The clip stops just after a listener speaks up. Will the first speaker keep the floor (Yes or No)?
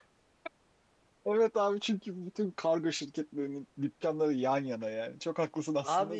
No